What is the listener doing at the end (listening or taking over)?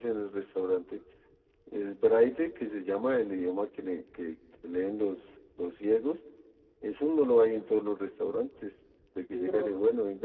listening